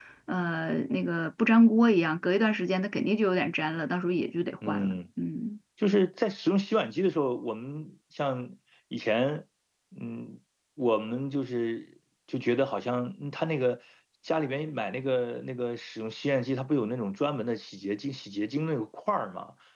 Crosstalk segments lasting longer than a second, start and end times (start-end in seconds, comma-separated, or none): none